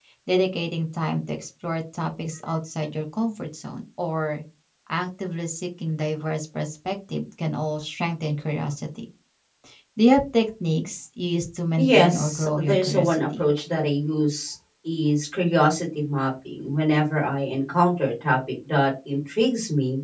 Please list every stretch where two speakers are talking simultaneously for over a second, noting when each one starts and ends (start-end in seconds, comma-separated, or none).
11.8-13.5